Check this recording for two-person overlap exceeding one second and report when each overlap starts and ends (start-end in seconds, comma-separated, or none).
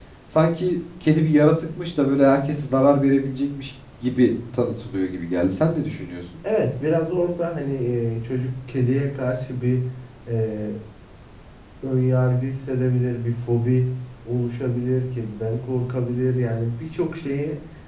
none